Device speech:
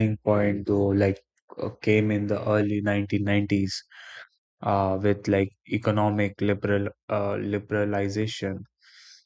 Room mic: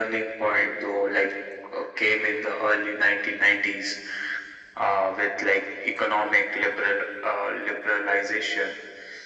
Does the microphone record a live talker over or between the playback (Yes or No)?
No